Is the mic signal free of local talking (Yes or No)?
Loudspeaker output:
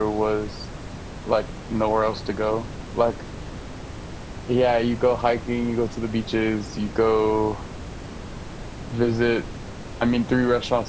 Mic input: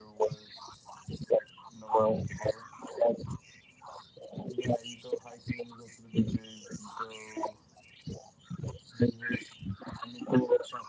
Yes